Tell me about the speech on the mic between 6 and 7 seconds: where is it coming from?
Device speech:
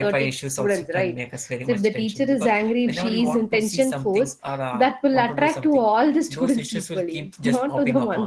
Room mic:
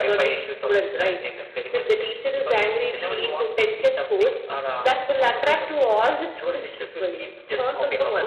echo only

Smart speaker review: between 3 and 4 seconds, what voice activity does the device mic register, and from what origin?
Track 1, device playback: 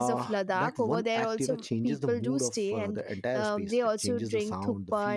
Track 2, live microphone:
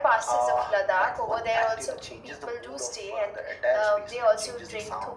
echo only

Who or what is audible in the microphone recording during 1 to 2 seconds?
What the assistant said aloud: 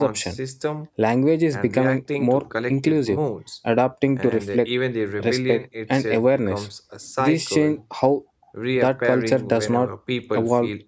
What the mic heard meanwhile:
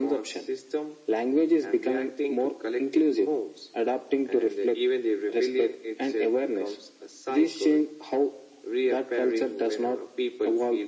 echo only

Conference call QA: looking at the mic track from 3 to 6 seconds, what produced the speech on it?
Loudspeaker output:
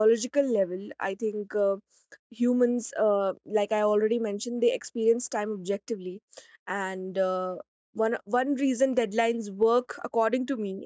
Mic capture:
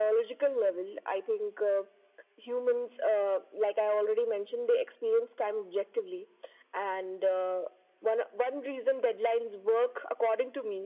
echo only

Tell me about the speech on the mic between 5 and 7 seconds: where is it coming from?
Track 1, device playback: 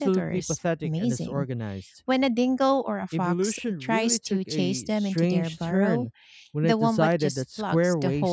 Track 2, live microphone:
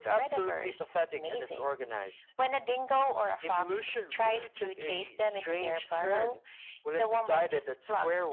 echo only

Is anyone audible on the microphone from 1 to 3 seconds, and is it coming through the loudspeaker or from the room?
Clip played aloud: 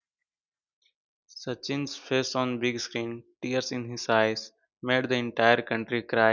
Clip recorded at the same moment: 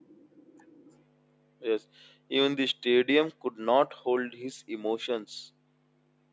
user only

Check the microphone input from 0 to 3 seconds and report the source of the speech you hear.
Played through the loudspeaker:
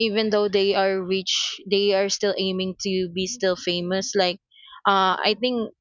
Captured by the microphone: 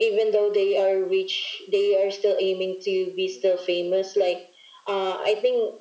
echo only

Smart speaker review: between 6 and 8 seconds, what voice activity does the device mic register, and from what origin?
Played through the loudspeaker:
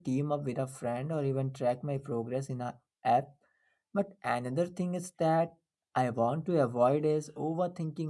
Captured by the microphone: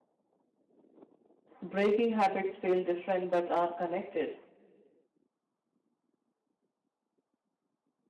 neither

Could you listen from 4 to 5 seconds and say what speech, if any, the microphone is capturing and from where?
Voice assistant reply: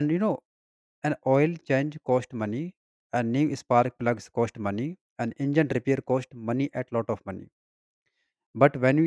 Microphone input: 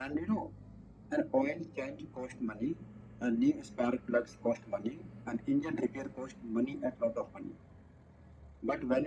echo only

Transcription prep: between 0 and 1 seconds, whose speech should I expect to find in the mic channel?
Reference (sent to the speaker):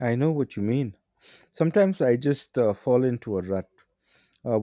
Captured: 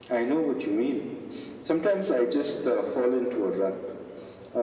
echo only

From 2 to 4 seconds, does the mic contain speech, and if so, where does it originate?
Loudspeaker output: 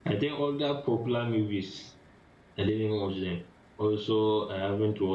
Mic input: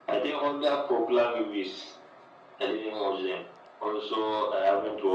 echo only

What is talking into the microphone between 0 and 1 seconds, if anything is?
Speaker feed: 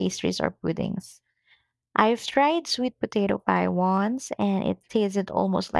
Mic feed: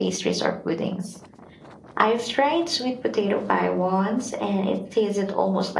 echo only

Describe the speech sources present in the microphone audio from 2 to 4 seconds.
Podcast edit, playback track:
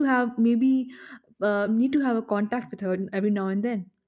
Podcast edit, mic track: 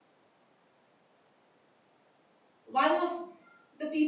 user only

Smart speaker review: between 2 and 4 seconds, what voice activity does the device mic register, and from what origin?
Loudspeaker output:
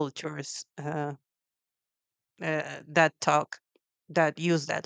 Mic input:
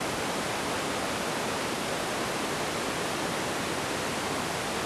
neither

